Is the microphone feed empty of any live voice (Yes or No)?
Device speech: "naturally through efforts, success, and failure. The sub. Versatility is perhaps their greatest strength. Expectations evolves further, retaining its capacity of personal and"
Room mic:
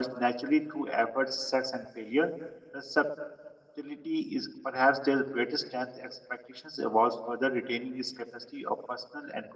Yes